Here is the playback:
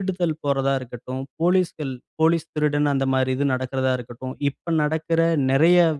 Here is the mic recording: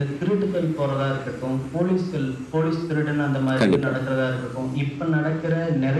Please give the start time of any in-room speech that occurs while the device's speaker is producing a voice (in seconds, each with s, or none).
3.6 s